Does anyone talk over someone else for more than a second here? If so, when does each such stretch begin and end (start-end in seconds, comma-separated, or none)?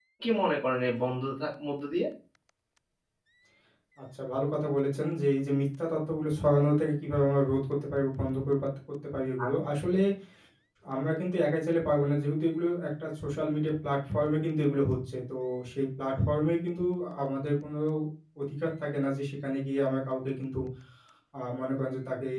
none